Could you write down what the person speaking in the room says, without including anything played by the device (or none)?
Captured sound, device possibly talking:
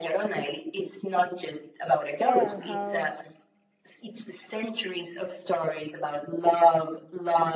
Yeah, how